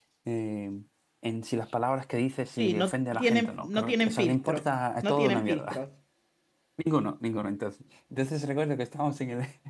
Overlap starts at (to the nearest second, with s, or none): 3 s